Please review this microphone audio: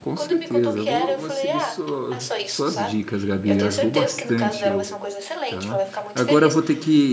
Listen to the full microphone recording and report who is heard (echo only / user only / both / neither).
both